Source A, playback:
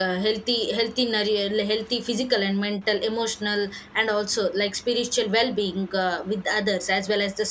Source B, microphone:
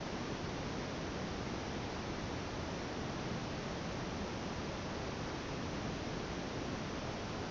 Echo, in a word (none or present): none